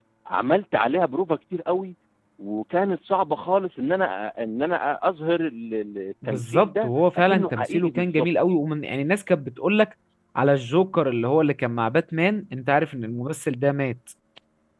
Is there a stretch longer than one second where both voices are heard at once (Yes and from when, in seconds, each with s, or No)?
Yes, from 6.2 s